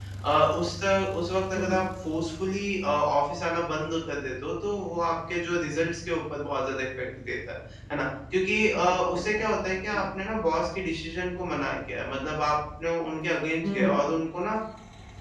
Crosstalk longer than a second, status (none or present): present